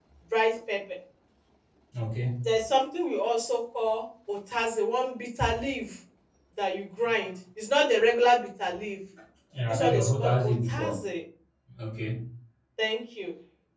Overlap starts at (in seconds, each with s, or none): 9.7 s